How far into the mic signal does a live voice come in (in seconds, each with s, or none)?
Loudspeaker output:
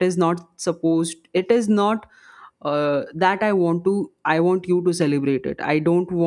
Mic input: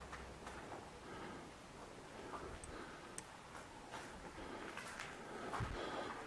none